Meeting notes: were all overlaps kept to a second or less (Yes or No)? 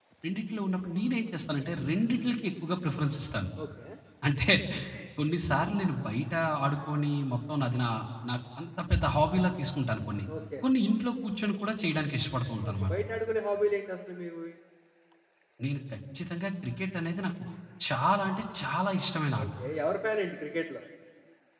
Yes